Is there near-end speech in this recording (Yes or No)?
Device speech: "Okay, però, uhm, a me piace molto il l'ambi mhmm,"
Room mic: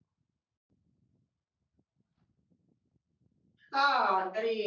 Yes